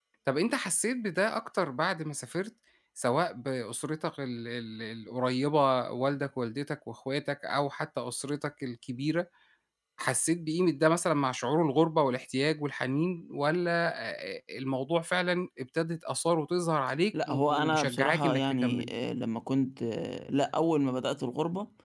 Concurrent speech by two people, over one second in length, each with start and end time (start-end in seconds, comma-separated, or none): 17.3-18.9